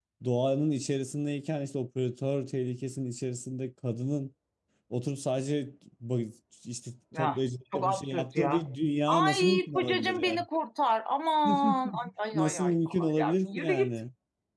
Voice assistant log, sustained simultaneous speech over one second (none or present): present